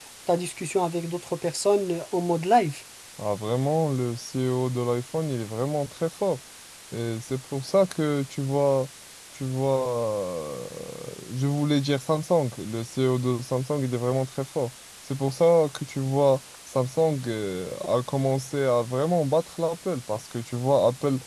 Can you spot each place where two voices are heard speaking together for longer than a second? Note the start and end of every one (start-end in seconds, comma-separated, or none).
none